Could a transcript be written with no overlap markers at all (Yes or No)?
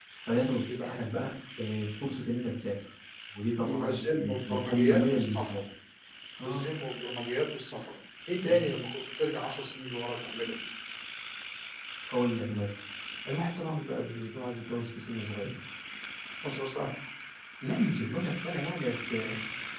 No